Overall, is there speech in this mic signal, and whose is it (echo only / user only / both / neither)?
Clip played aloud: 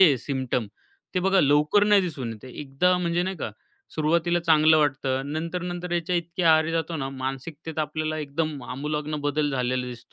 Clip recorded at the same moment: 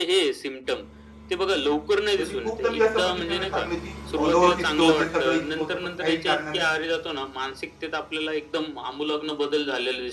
both